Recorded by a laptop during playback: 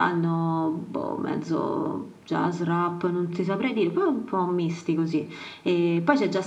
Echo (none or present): present